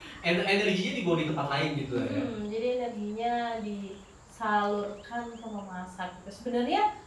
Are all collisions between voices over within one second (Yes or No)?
Yes